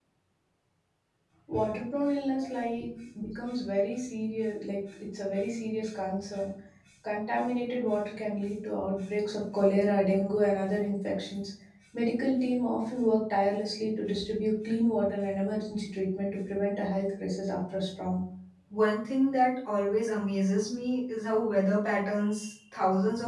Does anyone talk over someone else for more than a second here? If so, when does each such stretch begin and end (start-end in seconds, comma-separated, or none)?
none